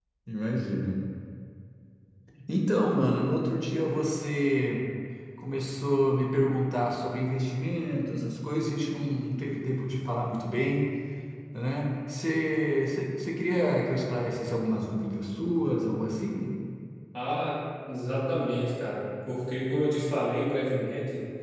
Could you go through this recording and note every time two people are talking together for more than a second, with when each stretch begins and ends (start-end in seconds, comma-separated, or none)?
none